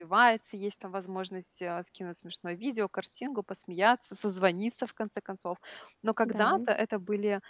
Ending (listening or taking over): listening